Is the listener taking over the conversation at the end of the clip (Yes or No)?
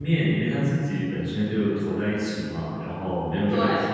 No